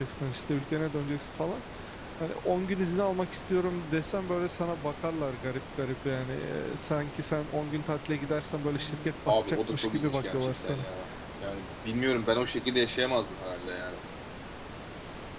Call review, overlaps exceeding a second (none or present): present